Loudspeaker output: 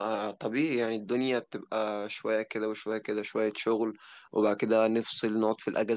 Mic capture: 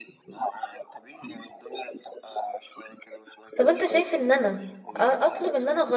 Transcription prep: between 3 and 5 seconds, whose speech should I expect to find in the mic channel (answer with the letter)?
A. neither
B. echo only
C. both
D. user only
C